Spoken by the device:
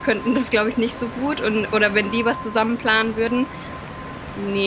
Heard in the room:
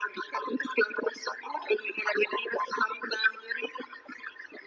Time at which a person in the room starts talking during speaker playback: none

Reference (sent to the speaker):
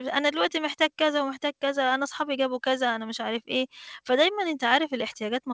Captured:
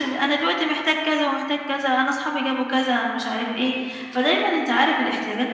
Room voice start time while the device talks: none

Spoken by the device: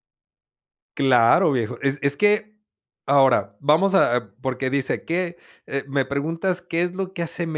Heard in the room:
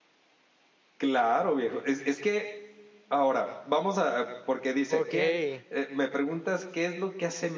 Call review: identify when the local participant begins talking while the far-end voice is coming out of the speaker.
4.9 s

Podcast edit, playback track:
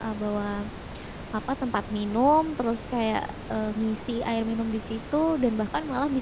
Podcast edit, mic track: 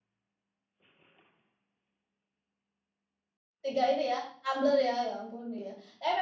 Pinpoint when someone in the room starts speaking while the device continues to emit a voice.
3.6 s

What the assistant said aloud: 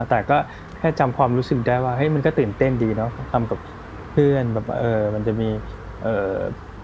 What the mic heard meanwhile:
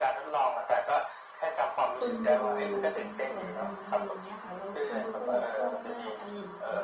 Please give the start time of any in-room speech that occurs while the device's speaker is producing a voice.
2.0 s

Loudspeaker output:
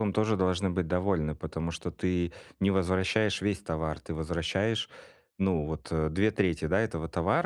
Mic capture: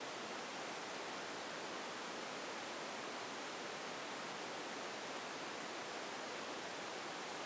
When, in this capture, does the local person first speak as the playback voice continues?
none

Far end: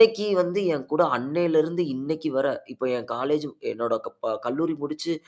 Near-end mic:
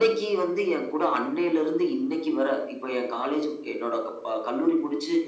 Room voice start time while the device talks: none

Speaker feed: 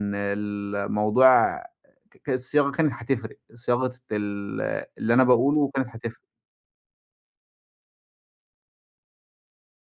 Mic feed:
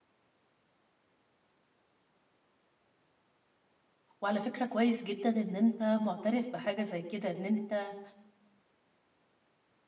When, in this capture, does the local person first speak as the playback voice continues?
4.2 s

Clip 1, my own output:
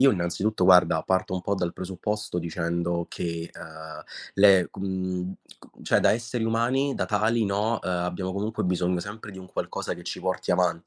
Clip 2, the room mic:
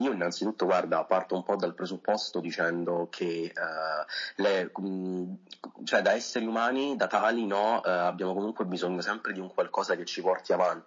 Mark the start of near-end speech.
none

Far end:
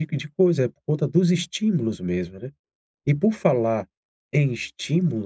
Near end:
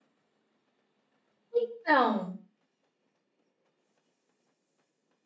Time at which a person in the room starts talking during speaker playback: 1.5 s

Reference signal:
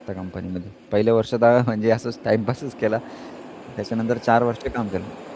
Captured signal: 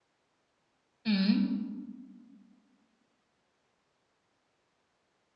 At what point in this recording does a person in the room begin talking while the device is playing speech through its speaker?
1.0 s

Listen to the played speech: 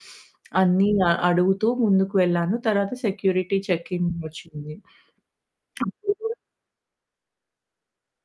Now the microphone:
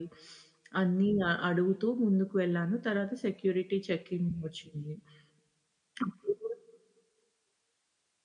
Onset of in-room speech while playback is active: none

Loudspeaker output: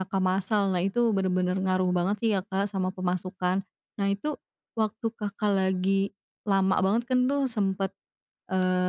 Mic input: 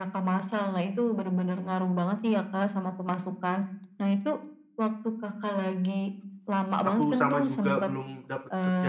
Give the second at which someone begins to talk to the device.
6.8 s

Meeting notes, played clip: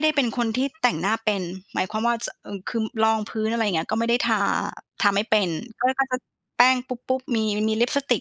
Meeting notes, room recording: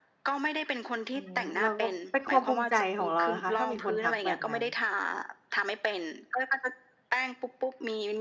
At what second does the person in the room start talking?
1.1 s

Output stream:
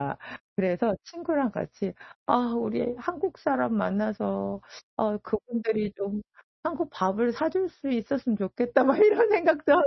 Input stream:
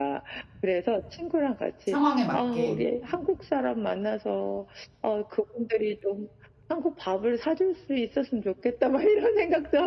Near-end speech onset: 1.9 s

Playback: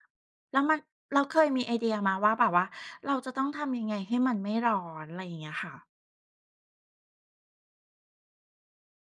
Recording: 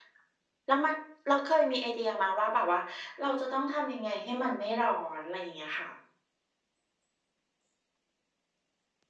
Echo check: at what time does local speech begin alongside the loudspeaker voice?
none

